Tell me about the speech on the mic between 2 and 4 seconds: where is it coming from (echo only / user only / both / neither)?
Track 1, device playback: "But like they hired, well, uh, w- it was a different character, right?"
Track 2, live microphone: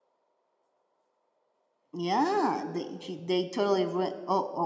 user only